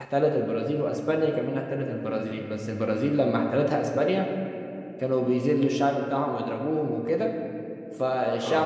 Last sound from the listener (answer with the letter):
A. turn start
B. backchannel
B